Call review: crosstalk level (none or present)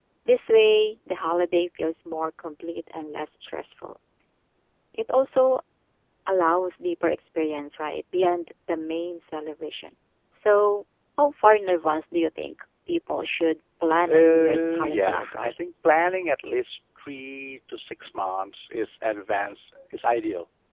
present